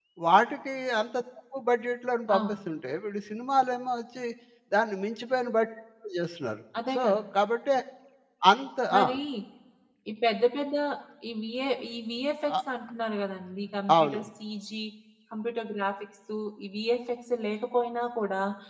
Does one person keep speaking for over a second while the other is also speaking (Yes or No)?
No